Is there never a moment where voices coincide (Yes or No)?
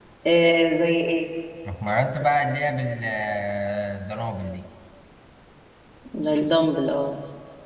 Yes